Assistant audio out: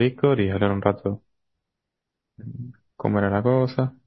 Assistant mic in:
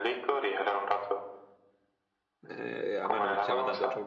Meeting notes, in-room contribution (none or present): present